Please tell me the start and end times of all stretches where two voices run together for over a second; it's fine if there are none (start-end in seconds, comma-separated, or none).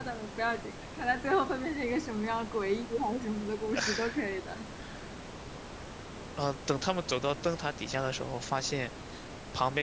none